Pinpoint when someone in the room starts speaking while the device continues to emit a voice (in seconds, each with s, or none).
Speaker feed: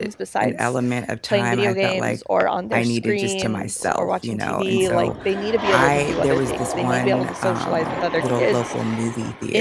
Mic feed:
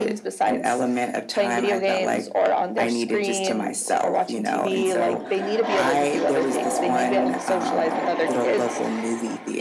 none